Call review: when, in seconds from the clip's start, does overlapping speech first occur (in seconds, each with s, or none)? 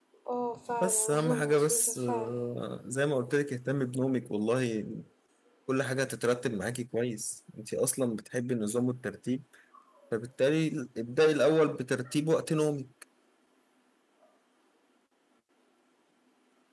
0.7 s